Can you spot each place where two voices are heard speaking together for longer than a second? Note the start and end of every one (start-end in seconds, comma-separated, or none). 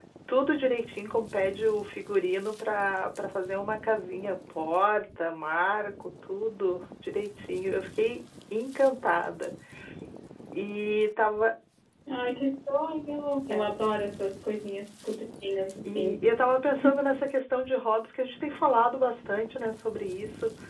none